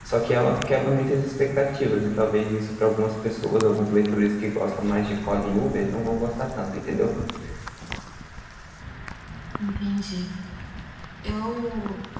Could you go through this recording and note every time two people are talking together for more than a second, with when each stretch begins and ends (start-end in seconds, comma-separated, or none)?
none